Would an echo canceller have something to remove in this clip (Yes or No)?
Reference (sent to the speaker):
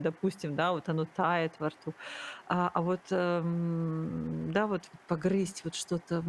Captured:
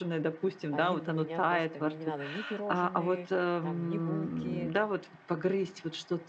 Yes